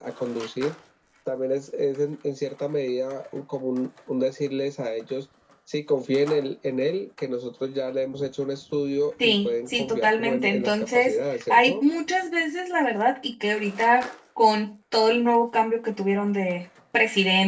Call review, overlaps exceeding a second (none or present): present